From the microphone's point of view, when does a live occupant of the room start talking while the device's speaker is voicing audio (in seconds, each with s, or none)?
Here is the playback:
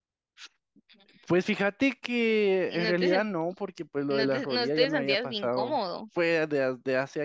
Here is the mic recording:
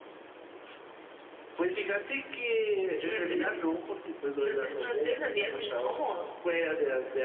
none